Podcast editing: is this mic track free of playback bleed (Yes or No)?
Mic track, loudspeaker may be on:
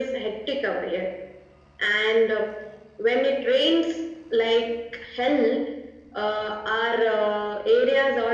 No